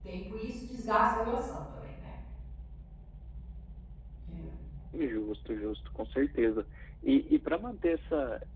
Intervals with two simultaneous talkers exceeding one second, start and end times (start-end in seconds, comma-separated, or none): none